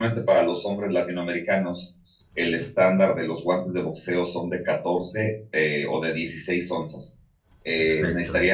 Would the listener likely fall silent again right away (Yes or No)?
Yes